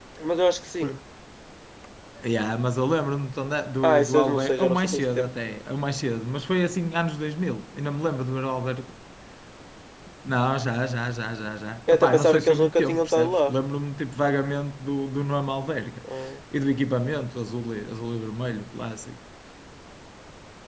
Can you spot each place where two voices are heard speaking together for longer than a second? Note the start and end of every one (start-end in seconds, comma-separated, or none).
3.8-5.3, 11.9-13.5